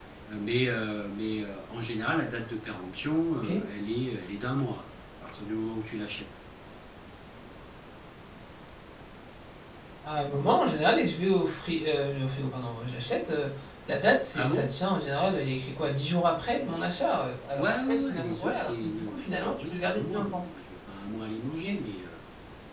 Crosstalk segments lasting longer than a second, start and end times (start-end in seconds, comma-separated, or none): 17.5-20.4